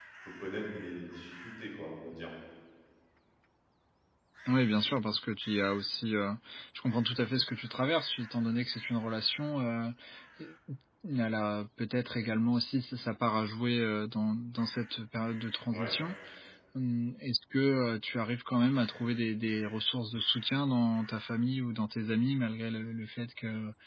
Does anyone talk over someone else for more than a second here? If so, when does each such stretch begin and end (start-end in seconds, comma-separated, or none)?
none